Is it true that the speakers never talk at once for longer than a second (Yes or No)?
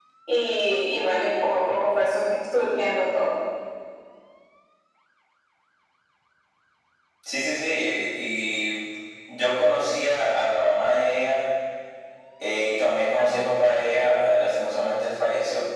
Yes